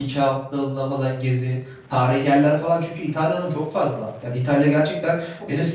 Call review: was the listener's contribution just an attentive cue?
Yes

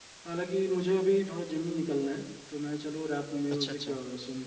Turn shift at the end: No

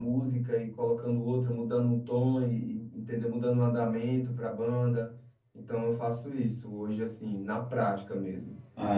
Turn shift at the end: Yes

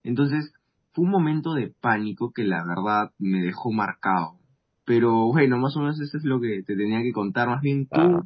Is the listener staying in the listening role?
Yes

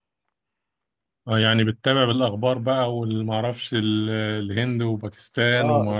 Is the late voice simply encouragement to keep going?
No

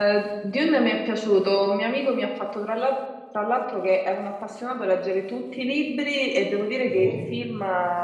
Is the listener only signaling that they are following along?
Yes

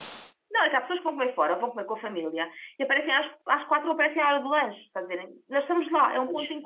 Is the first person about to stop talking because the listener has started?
No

